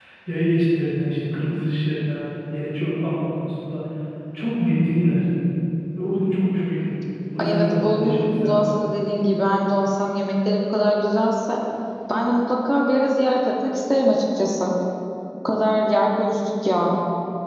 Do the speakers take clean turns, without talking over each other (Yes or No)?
No